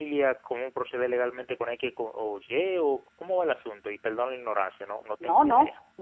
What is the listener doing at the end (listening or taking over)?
taking over